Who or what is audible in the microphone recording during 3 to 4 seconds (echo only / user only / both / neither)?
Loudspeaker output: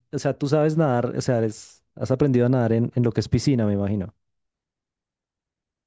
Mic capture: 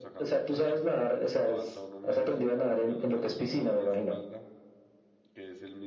both